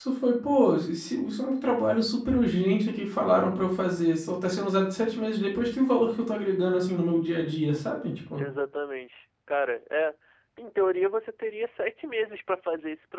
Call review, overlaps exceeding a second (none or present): none